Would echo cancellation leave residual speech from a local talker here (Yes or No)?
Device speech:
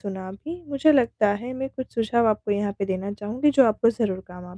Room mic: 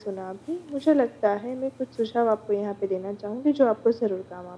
No